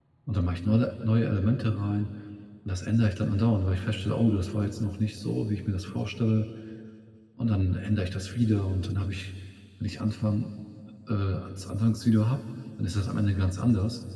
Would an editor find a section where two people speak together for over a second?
No

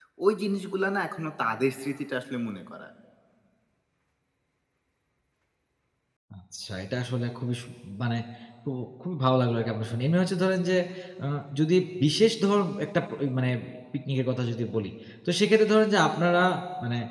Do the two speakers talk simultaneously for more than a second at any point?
No

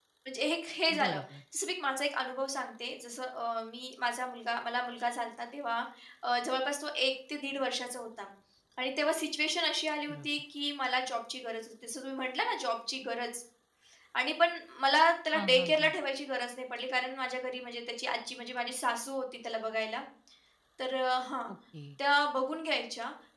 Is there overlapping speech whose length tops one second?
No

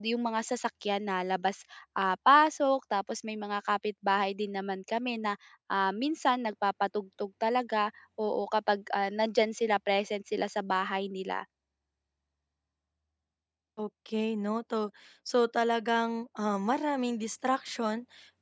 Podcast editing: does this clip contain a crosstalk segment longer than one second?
No

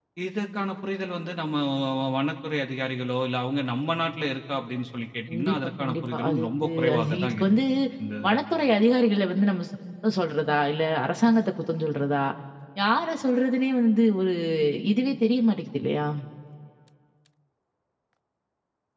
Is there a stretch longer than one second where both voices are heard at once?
Yes, from 5.3 s

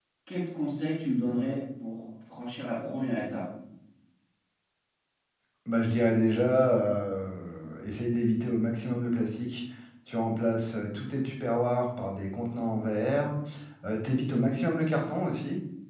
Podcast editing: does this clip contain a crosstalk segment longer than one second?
No

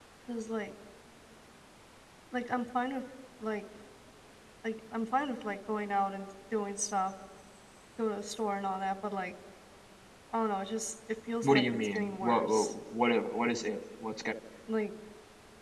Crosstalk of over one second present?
Yes, from 11.4 s

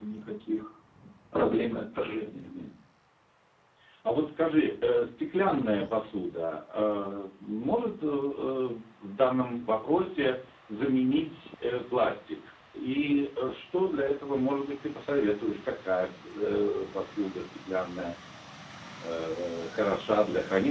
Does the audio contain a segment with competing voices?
No

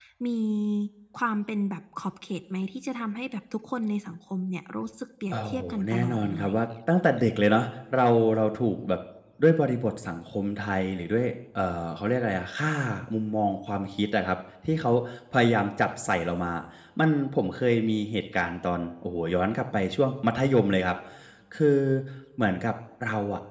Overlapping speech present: Yes, from 5.3 s

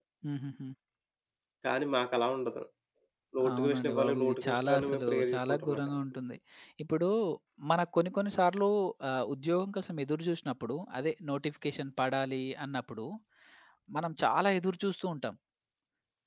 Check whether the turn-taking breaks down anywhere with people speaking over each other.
Yes, from 3.5 s

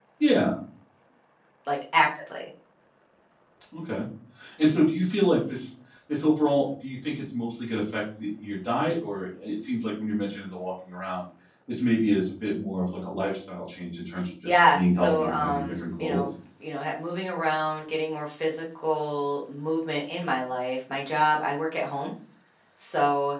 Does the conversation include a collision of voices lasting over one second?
Yes, from 14.4 s

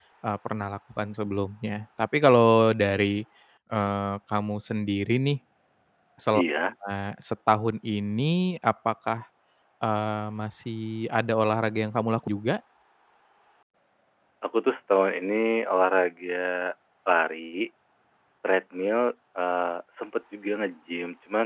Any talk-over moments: No

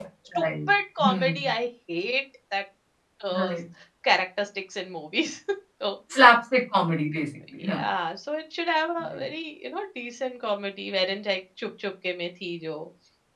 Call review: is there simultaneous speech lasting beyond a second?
No

